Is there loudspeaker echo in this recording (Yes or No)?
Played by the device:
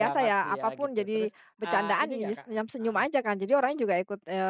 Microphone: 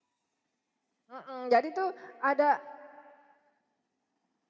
No